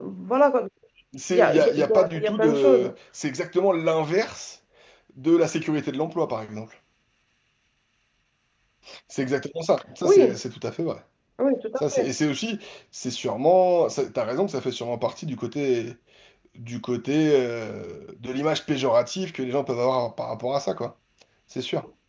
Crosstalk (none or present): present